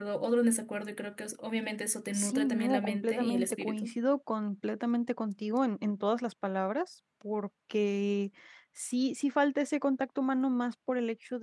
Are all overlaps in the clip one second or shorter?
No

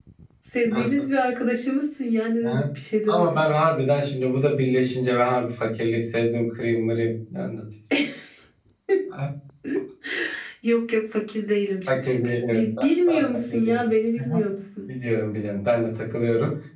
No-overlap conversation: No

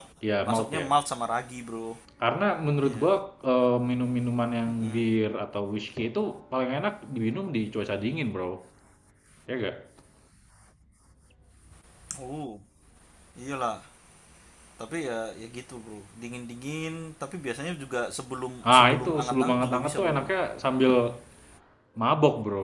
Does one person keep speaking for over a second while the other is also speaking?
Yes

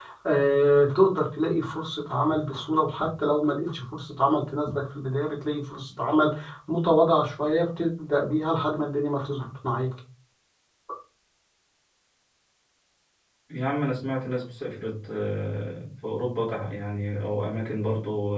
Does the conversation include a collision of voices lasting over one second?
No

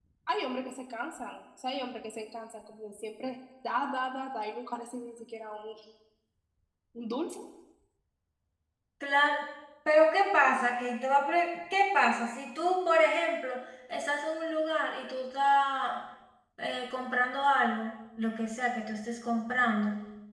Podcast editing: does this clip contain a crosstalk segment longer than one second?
No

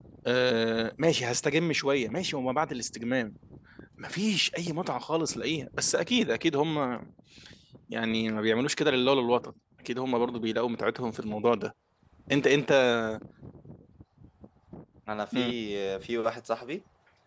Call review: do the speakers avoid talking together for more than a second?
Yes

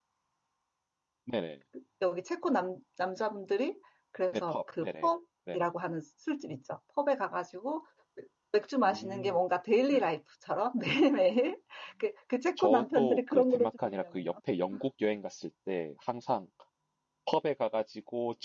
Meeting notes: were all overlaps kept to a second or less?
No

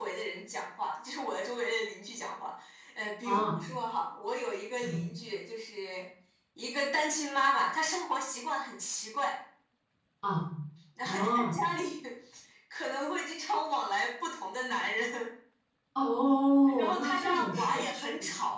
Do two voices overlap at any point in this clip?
Yes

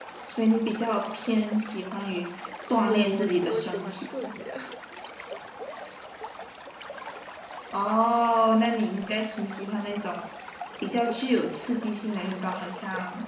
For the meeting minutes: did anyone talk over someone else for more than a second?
Yes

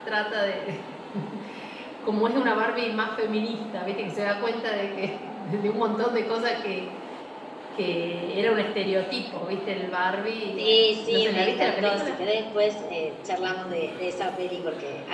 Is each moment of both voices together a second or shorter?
No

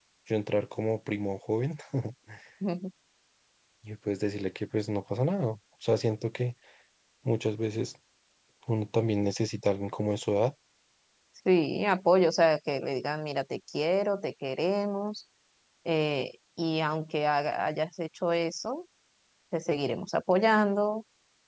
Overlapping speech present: No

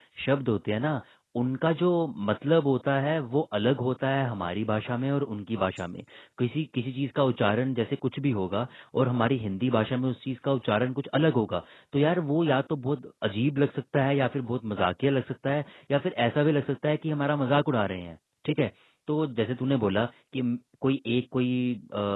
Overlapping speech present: No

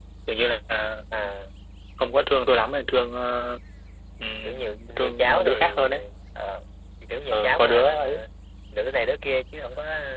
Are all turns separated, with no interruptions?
No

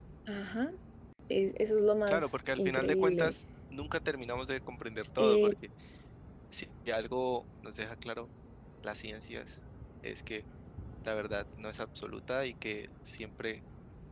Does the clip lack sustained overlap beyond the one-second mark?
No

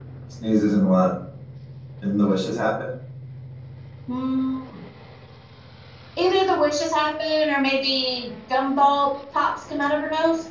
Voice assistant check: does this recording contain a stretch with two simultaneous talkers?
No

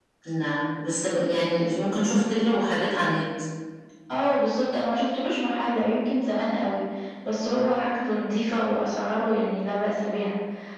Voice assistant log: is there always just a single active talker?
Yes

